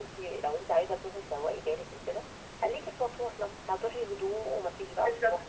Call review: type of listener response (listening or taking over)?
taking over